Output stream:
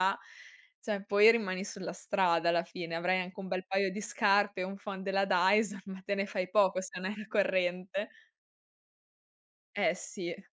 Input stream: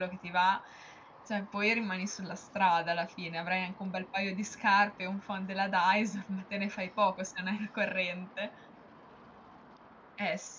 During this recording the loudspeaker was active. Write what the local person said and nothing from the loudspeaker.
none

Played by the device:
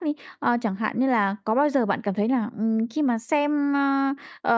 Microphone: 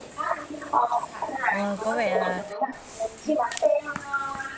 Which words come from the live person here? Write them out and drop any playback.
Ôi. Có vẻ là

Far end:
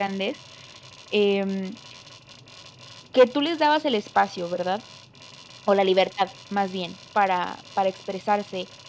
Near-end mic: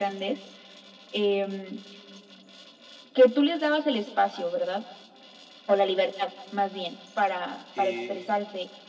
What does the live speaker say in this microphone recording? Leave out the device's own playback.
y,

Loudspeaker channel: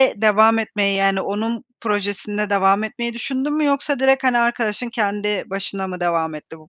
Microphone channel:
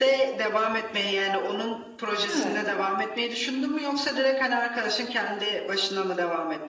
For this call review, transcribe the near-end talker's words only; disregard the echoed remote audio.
Evet.

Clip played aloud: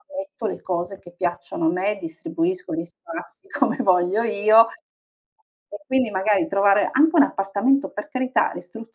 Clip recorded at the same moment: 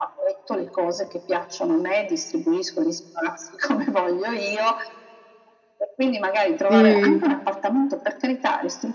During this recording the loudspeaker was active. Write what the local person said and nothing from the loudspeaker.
Mh.

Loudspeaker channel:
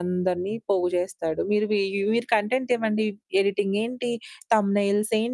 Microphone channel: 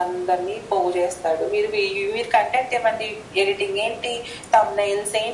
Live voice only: none

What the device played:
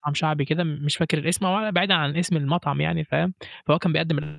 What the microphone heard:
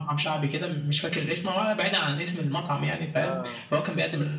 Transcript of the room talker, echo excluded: آه

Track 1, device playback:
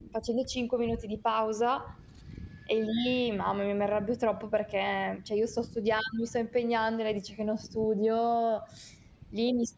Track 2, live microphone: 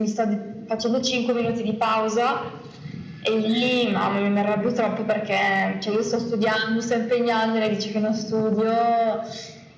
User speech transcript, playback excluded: none

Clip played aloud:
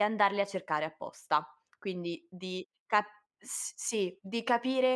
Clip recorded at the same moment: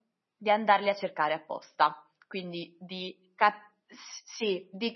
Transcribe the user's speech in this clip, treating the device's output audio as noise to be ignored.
none

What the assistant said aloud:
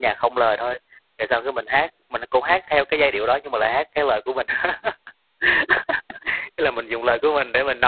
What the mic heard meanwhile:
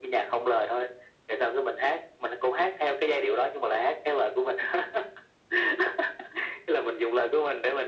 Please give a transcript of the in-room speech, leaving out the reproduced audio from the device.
none

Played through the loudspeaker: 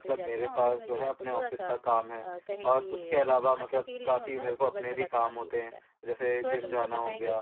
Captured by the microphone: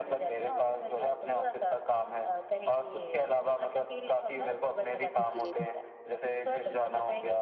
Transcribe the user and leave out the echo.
जी।

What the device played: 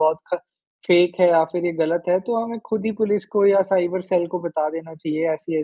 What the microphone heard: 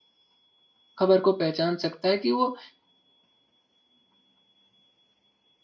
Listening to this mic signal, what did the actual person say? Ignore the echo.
खबर को पहचान सकता है कि वो

